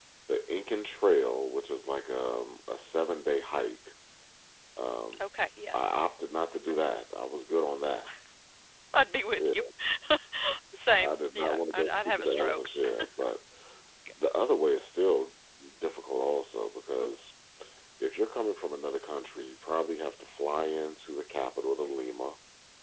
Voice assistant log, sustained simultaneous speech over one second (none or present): present